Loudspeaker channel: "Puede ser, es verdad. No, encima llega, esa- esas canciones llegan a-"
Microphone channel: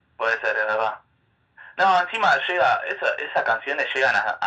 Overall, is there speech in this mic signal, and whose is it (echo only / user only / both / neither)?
echo only